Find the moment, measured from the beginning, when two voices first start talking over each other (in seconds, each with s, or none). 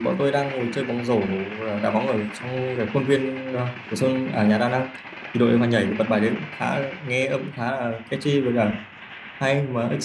none